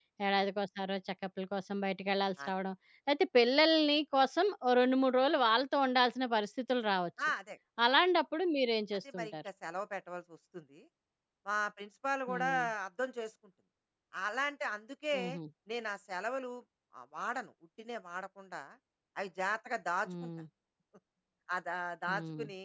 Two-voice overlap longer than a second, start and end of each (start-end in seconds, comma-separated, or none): none